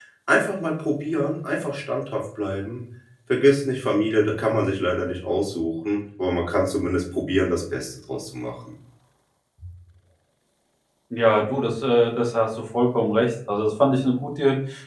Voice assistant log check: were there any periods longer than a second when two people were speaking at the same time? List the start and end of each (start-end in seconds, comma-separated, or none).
none